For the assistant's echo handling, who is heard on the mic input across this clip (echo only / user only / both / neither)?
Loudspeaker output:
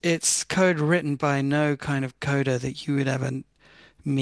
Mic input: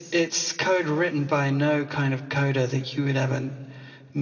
echo only